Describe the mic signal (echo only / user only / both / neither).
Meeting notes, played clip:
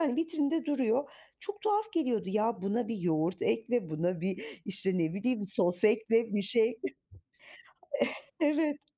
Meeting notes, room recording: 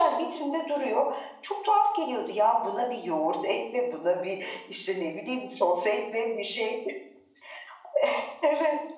echo only